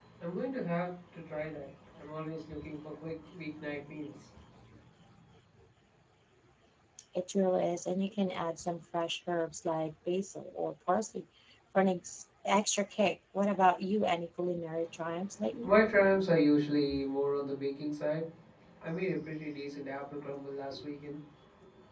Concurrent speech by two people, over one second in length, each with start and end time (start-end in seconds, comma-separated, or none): none